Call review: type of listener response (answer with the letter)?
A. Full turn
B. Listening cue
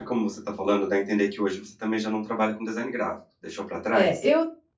A